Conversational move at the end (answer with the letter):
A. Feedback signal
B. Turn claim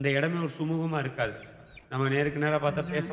A